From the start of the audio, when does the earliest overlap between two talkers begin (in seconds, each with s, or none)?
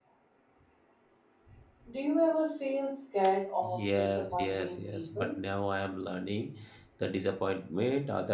3.6 s